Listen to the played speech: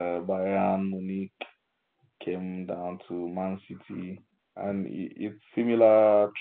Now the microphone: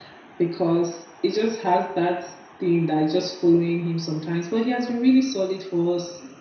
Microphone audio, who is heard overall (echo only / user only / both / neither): user only